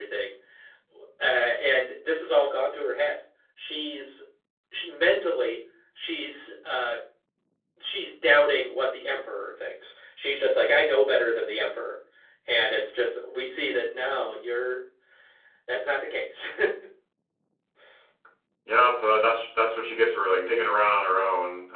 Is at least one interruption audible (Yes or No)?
No